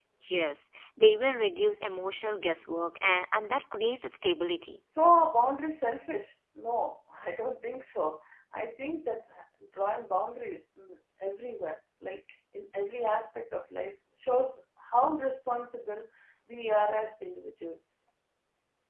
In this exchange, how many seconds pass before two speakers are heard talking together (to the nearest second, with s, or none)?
none